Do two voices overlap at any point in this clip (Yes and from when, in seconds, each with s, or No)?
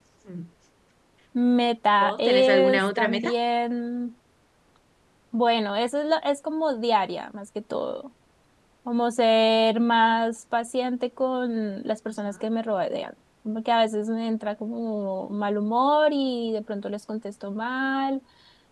Yes, from 2.0 s